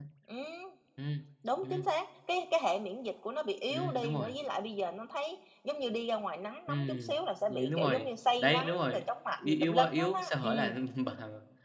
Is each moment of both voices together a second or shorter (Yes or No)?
No